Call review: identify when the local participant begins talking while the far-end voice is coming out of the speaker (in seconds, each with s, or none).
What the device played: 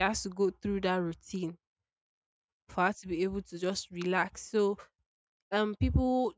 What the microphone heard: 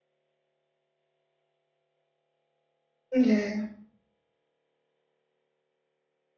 3.1 s